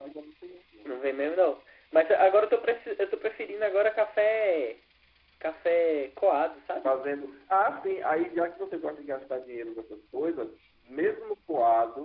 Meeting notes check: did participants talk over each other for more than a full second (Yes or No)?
No